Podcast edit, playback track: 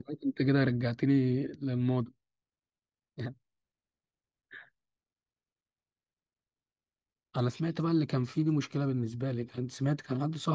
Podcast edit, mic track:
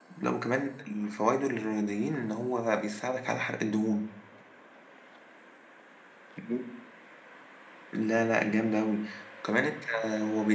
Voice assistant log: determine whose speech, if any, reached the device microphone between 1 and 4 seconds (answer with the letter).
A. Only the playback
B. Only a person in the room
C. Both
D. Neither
B